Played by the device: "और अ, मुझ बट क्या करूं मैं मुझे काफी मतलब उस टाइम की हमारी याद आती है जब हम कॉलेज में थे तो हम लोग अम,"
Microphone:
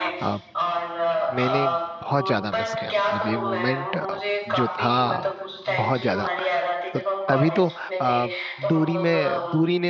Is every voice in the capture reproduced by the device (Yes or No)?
No